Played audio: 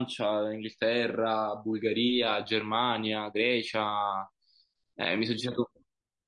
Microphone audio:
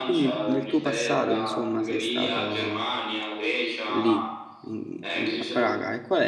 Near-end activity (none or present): present